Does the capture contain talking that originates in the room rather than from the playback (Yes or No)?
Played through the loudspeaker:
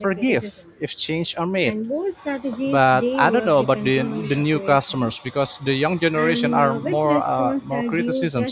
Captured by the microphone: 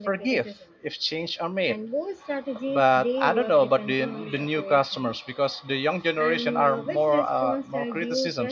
No